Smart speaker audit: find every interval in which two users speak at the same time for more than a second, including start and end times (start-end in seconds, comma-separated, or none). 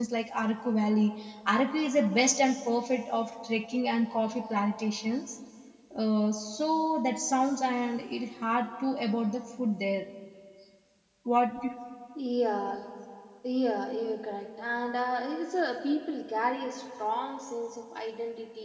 none